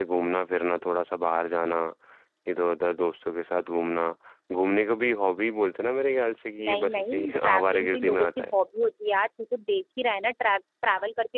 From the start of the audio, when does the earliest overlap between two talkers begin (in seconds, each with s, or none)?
6.6 s